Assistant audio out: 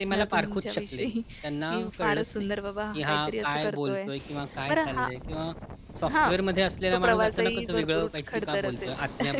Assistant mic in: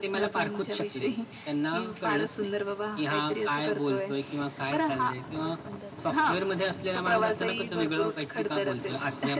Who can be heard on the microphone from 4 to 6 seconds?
both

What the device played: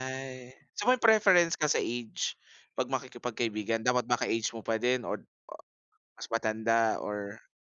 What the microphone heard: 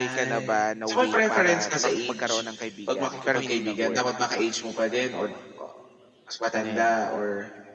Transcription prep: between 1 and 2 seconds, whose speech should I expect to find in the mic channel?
both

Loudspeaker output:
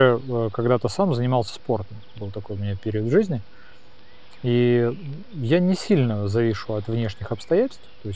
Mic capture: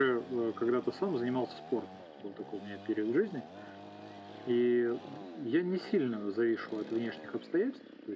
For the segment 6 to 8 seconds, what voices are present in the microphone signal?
echo only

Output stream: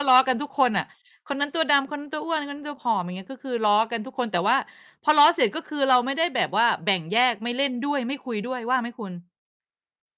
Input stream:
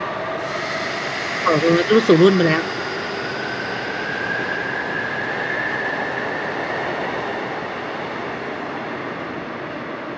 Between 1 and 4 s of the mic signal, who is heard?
user only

